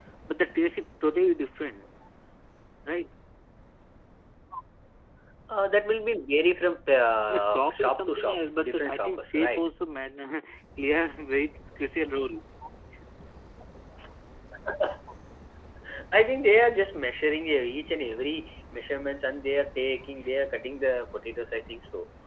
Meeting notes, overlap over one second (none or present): present